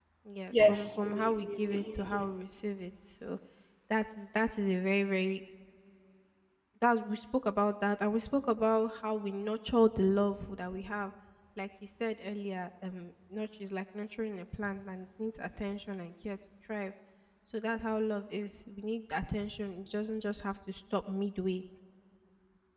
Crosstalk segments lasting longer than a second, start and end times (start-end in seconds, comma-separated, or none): 0.5-2.3